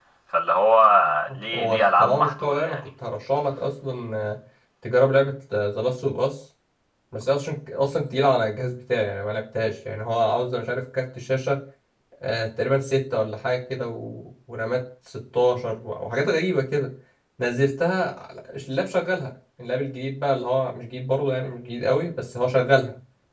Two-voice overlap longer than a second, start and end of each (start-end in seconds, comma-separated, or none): 1.5-2.8